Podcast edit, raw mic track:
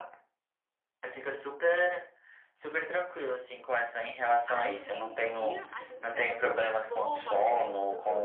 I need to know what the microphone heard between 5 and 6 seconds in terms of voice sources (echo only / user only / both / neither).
both